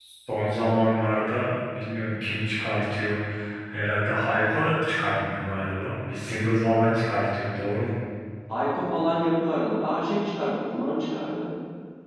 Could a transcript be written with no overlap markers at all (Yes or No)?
Yes